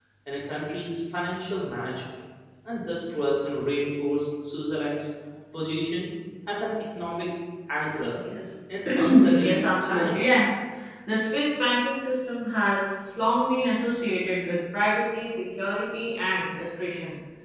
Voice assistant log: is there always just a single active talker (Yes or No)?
No